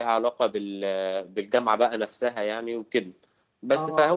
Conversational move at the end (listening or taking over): listening